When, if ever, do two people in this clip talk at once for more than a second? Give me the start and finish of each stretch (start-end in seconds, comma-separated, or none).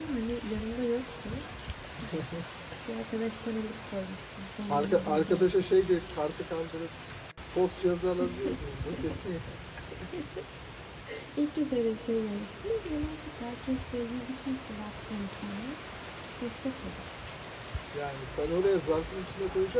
4.7-6.0